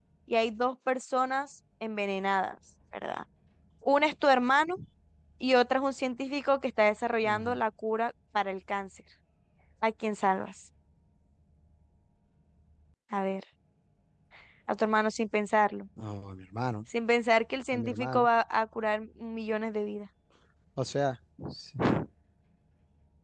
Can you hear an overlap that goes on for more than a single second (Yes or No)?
No